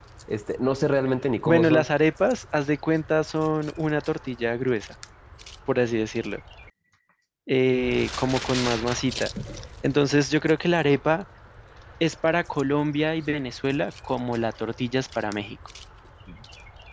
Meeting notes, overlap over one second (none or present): none